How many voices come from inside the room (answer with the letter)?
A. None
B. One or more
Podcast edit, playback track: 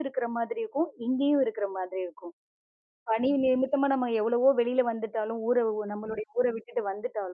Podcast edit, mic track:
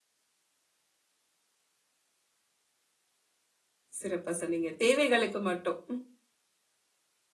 B